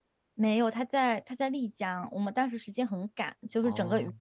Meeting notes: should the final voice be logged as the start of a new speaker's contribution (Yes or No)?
No